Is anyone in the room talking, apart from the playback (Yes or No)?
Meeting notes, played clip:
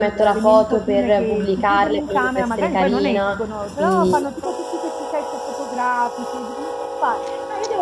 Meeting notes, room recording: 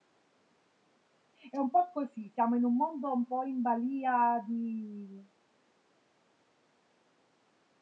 Yes